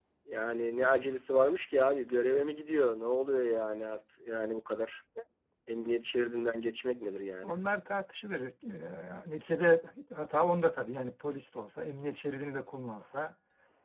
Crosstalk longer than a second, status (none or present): none